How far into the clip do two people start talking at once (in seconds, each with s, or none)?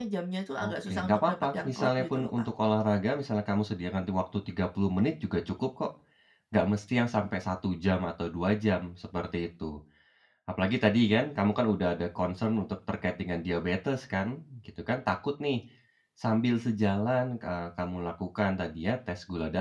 0.6 s